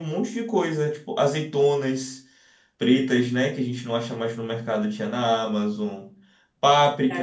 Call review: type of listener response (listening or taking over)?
taking over